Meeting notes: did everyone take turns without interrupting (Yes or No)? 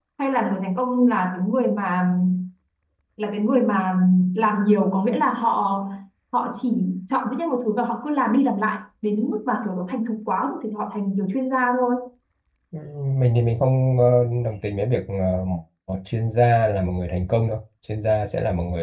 Yes